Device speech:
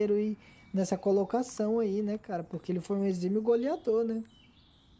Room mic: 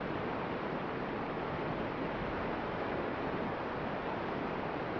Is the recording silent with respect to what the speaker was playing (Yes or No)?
Yes